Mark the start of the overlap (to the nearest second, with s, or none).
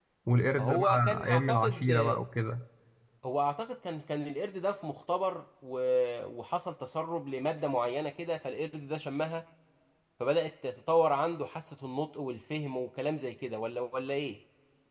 1 s